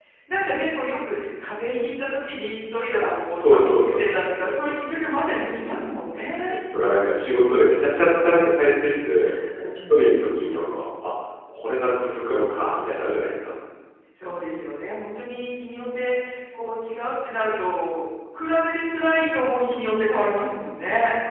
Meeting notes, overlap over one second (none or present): present